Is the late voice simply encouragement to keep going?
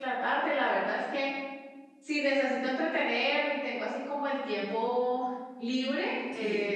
Yes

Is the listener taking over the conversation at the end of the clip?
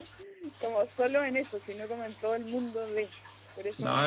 Yes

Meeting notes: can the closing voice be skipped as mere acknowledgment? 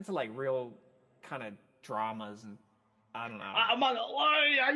No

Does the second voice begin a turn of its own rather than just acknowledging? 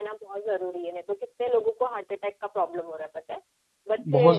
No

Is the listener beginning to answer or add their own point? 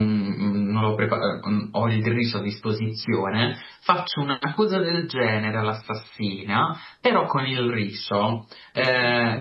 No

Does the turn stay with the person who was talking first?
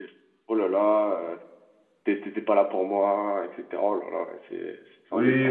No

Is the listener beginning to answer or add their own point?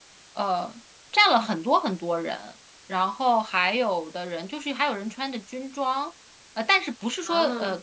No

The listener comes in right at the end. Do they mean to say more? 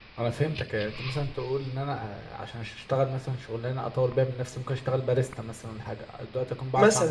Yes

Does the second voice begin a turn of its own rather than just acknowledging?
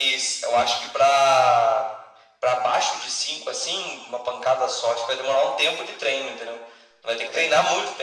No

